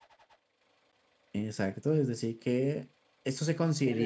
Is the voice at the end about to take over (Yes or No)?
Yes